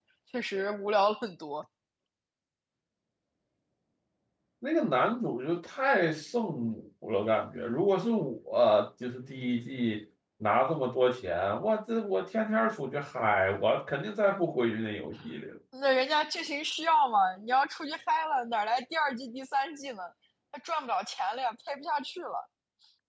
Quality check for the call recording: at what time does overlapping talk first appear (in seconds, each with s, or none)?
none